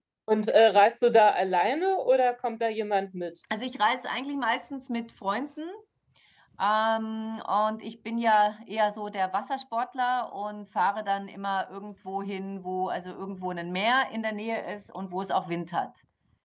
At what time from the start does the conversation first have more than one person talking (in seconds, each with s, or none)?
none